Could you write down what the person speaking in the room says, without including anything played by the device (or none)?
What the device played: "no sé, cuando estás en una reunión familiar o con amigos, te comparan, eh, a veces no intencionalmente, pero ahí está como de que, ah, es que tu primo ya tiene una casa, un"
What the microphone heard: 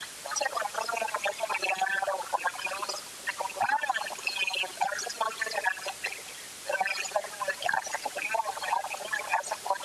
none